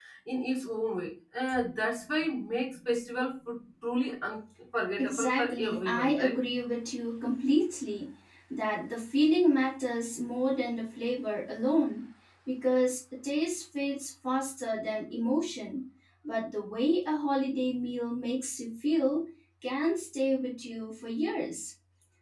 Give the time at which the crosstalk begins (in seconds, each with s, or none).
5.0 s